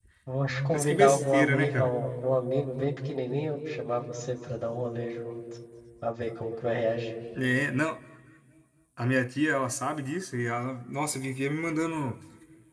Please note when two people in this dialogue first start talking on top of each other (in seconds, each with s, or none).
0.7 s